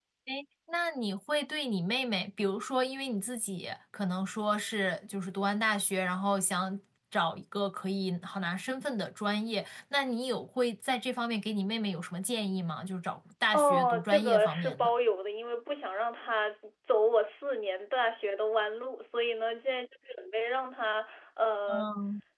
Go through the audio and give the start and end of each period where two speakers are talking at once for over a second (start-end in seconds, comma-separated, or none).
13.5-14.9